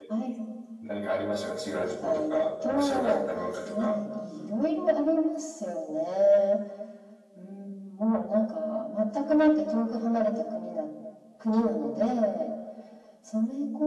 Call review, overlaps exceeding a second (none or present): present